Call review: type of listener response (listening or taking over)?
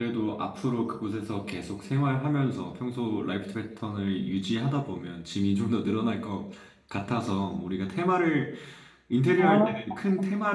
listening